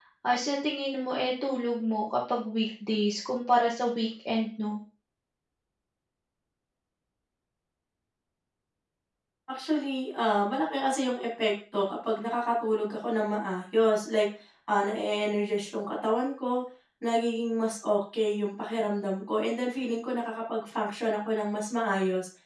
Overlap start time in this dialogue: none

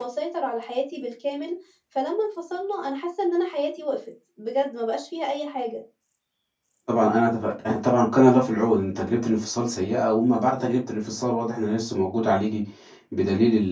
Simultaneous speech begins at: none

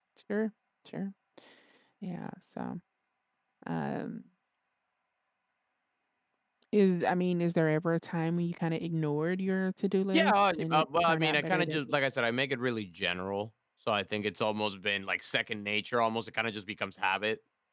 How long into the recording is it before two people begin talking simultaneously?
10.1 s

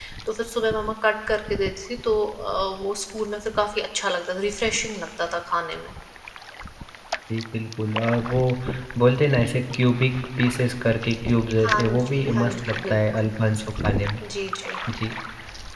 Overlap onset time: 11.6 s

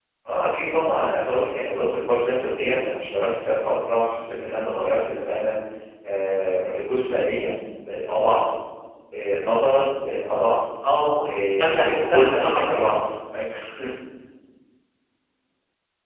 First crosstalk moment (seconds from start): 11.6 s

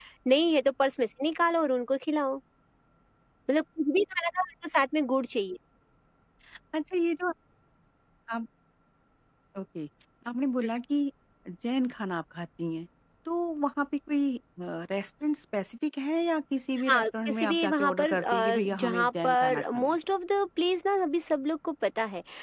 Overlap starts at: 16.9 s

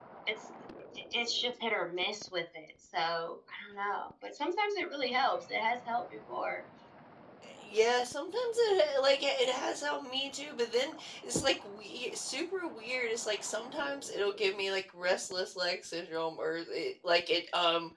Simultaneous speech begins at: none

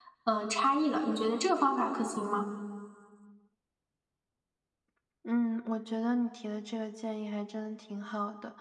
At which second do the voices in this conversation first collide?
none

